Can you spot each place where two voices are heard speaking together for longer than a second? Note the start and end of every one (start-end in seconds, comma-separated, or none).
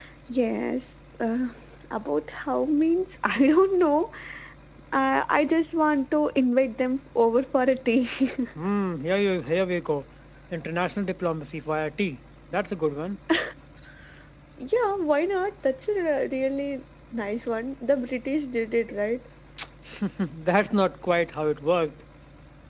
none